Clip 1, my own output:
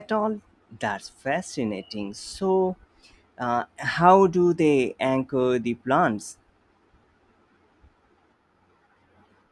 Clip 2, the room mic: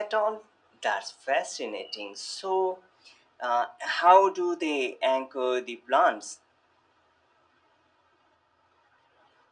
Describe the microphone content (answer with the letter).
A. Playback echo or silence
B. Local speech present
A